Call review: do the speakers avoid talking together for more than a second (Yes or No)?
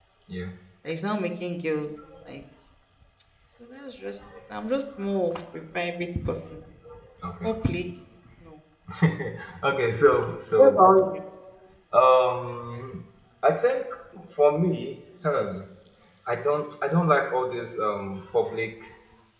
Yes